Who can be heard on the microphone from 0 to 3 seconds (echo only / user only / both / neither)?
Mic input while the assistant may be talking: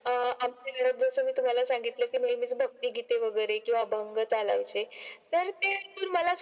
echo only